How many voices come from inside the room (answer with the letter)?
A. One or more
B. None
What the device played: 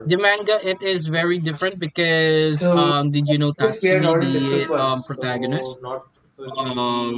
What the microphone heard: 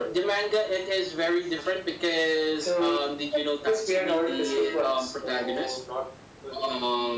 B